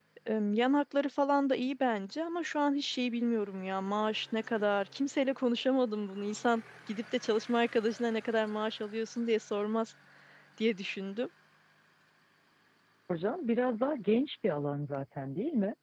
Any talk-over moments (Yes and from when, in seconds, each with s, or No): No